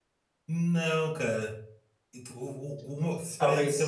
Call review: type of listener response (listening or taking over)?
listening